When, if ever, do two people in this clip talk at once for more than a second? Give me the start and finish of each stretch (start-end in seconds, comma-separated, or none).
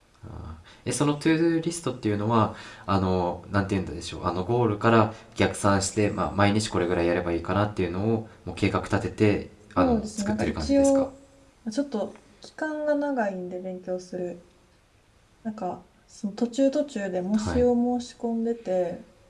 9.8-11.0